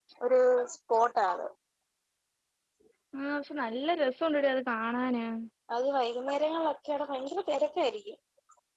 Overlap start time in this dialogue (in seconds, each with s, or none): none